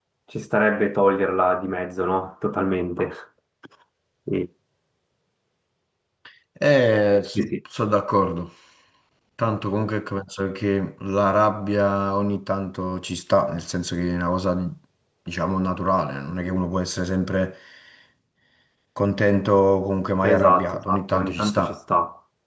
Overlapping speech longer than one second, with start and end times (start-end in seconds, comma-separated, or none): 20.2-21.6